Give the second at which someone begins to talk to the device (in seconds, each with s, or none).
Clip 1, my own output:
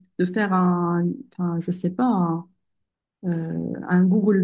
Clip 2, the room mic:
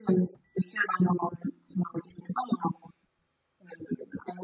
none